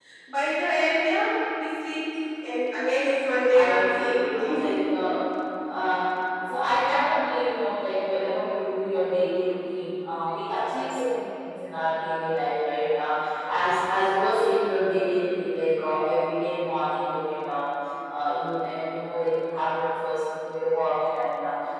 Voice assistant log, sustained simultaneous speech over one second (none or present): present